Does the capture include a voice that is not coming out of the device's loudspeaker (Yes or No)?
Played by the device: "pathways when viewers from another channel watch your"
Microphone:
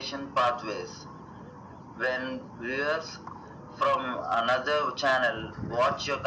No